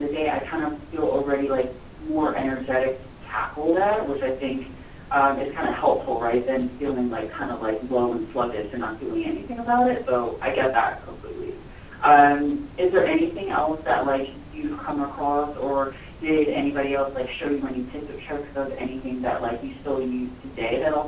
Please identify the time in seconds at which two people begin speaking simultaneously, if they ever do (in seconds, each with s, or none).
none